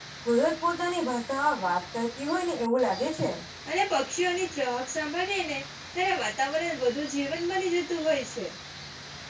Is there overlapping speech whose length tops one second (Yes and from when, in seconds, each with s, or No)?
No